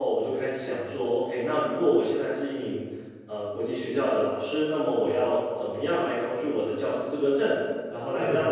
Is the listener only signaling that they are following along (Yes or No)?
Yes